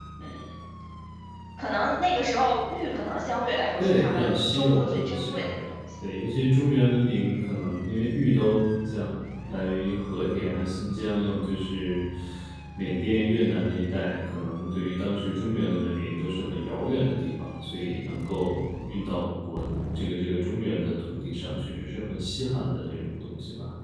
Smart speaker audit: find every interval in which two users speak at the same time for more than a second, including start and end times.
3.8-5.5

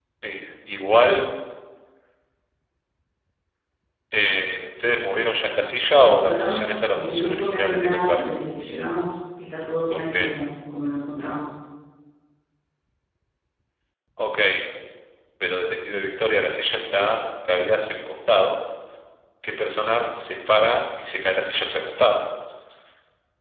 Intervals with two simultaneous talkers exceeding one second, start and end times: 6.2-8.2

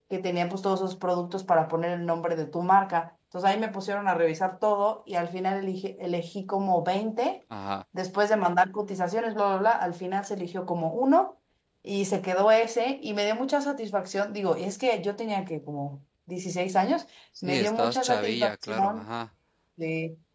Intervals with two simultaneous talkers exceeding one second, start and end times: 17.4-19.1

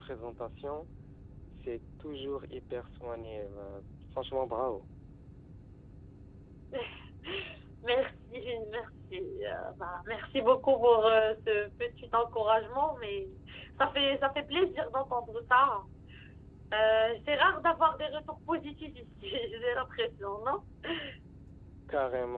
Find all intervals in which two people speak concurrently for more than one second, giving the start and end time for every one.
none

